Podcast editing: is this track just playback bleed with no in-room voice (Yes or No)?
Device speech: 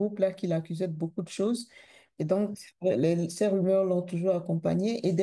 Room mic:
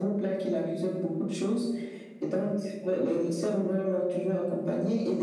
Yes